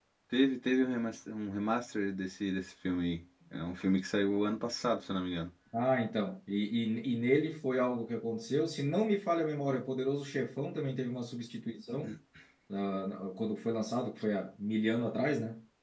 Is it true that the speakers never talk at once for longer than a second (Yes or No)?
Yes